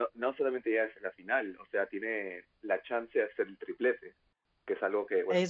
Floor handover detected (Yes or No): No